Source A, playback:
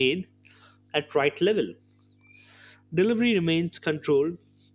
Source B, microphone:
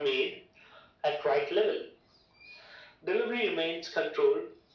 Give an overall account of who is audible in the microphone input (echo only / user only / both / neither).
echo only